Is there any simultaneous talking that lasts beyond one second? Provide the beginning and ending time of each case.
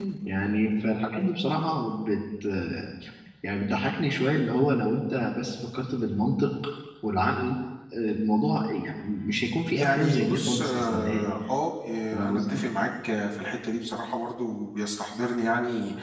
9.7-11.3

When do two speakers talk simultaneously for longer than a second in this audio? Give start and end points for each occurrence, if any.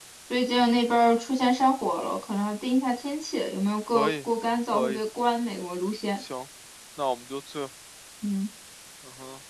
none

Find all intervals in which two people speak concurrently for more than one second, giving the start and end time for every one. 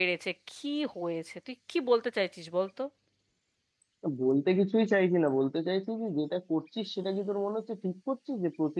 none

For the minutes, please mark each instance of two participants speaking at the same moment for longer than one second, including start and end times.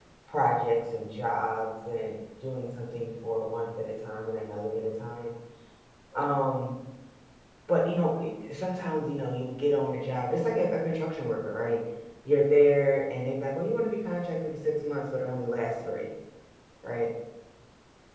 none

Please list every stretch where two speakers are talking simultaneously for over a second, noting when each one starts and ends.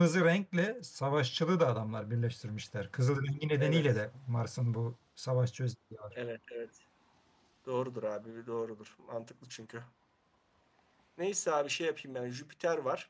none

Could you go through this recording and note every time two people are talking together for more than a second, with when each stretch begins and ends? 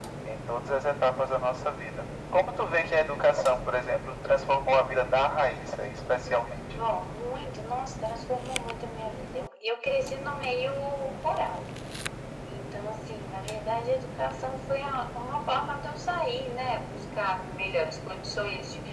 none

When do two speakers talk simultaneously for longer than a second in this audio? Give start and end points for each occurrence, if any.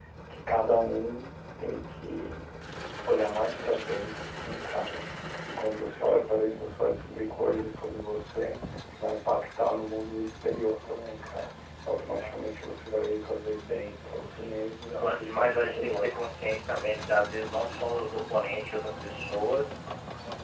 14.2-16.3

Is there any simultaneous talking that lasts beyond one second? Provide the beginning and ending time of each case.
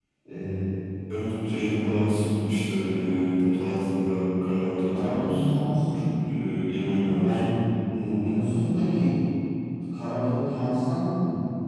none

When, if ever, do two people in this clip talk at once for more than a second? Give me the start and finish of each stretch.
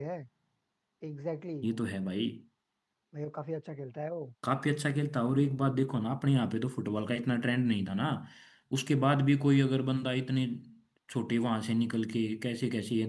none

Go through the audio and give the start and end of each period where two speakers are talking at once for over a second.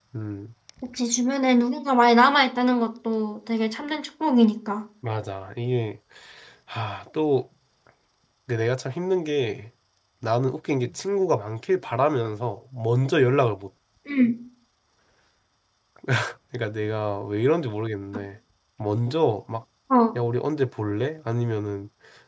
none

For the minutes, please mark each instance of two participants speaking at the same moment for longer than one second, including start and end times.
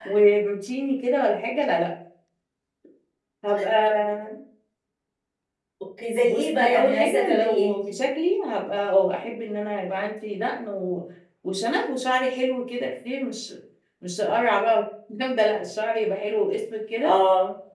6.2-7.9

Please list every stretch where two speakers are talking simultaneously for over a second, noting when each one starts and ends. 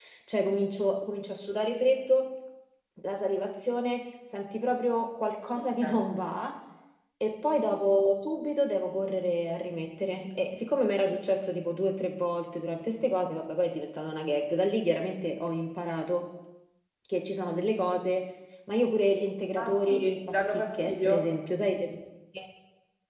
19.6-21.3

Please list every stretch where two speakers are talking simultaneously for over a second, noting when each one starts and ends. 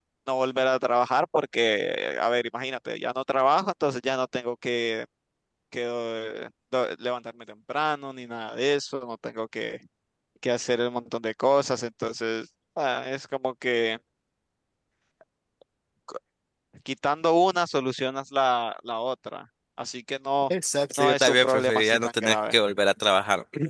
21.0-22.6

